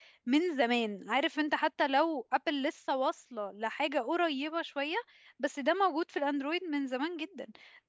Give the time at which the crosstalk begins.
none

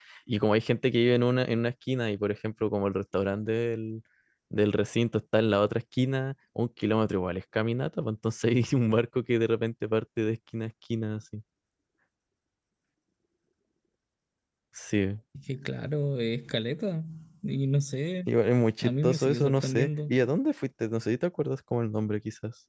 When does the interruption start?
19 s

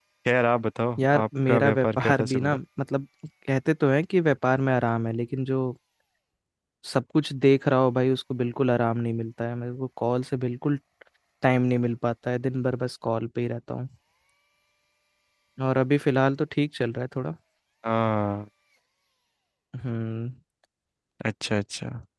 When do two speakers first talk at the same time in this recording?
1 s

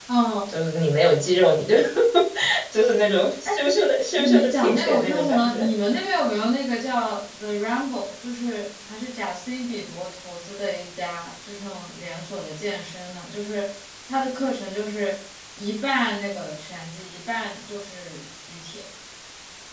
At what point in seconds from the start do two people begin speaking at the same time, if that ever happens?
4 s

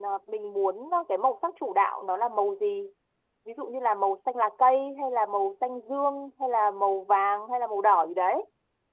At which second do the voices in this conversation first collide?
none

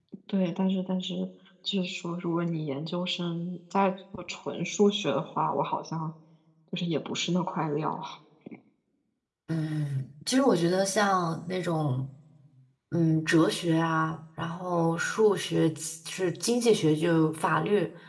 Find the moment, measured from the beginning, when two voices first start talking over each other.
none

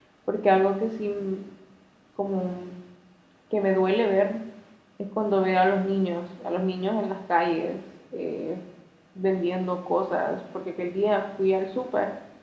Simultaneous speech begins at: none

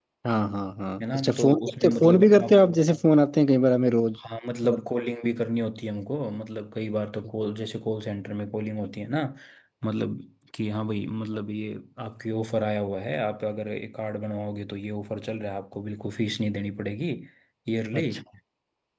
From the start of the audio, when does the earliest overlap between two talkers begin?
1 s

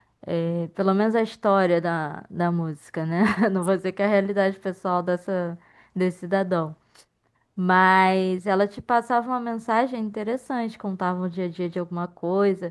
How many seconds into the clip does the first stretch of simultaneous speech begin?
none

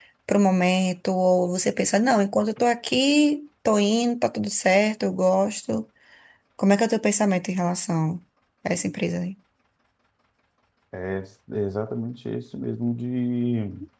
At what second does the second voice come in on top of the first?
none

